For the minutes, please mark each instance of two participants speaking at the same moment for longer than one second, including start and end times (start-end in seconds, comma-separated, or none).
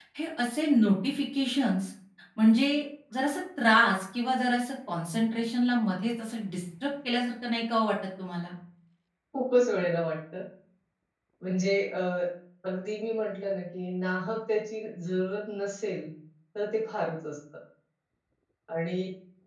none